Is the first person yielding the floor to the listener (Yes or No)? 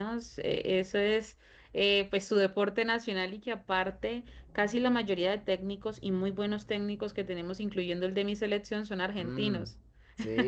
Yes